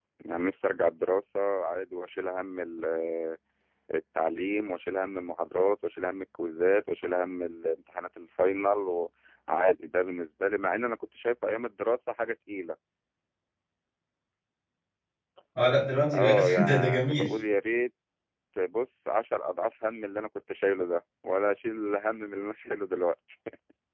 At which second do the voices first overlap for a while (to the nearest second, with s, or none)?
16 s